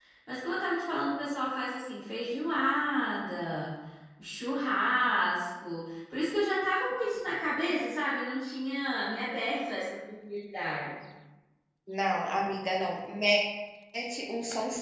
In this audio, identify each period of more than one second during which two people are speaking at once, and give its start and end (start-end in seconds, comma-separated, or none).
none